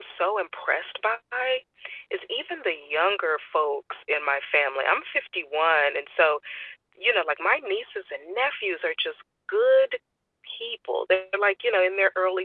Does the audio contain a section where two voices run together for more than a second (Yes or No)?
No